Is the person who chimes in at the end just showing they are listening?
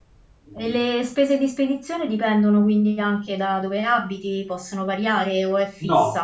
No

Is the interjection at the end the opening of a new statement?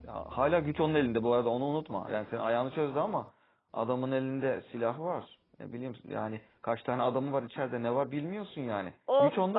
Yes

